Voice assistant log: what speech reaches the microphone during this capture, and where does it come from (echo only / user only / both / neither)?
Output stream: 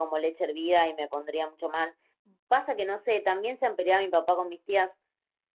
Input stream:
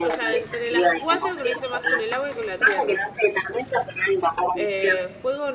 both